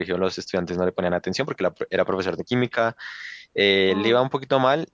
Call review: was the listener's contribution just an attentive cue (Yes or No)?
Yes